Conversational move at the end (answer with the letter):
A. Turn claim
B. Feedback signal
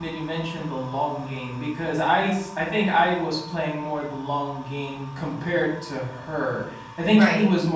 B